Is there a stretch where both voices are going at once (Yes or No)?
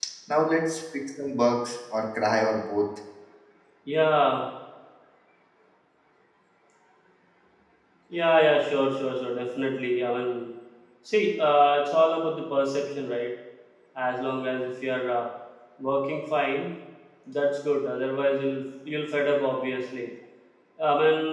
No